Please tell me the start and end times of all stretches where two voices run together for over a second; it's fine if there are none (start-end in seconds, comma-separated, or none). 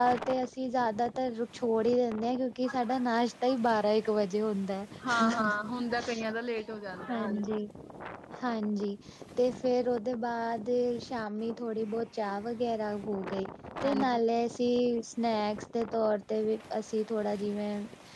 none